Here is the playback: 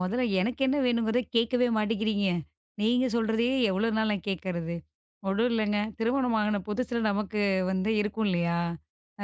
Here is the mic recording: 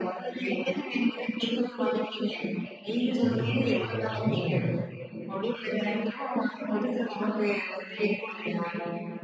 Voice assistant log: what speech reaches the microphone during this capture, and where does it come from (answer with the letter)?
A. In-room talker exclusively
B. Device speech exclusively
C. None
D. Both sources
D